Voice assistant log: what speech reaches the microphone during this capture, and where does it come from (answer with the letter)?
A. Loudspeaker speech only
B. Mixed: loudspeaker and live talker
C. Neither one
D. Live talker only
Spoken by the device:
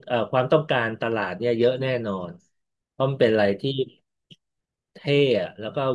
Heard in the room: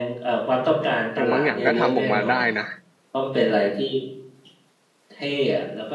B